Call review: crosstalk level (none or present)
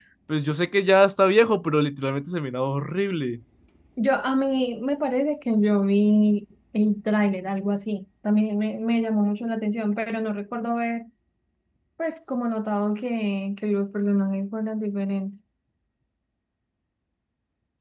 none